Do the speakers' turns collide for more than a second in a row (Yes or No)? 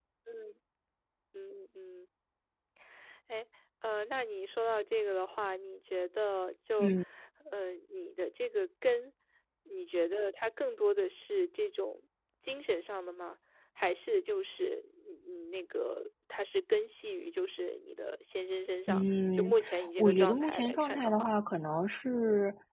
Yes